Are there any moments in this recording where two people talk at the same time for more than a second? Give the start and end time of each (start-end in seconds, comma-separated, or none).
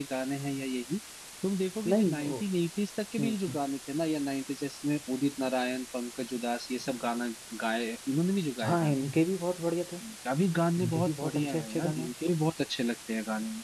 10.8-12.1